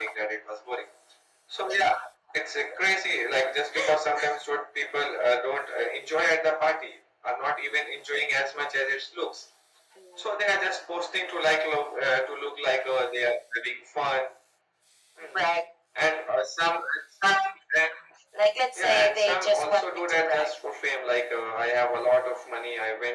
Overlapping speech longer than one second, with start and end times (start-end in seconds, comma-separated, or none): 18.8-20.6